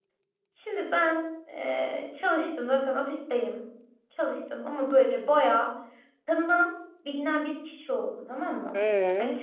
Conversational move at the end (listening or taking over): listening